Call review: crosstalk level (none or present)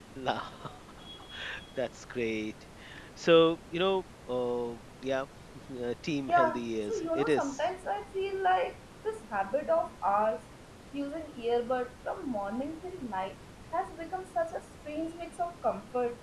present